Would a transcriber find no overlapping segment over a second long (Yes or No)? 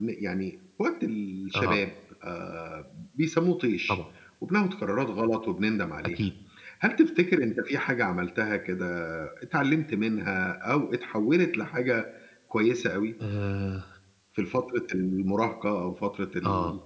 Yes